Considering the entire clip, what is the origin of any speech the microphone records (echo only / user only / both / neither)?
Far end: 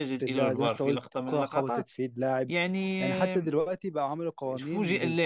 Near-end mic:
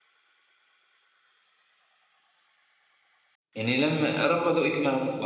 user only